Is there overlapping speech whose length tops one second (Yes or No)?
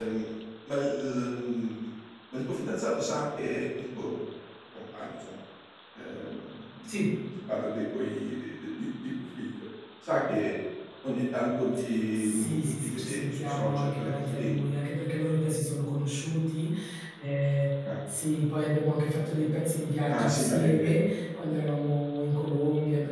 Yes